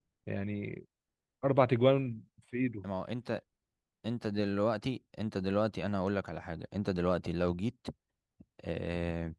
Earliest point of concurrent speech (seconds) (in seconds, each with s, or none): none